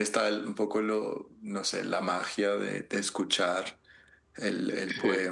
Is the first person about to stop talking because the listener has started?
Yes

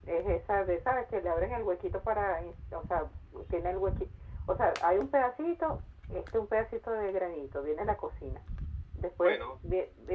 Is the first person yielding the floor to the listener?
No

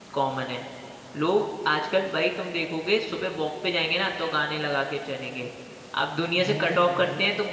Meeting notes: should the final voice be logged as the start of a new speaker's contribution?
No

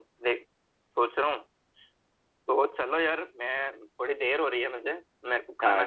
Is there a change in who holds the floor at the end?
Yes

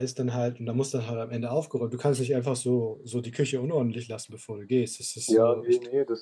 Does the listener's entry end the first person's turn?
Yes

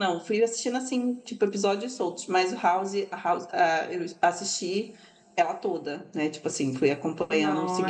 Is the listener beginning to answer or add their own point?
Yes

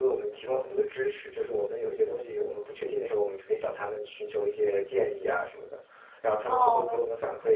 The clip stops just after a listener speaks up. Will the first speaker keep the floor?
Yes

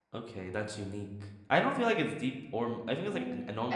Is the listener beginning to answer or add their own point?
Yes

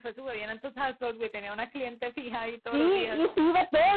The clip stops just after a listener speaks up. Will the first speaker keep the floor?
No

